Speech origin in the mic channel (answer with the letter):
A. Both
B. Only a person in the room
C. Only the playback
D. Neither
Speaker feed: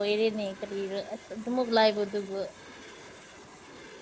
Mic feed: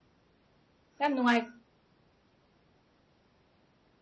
B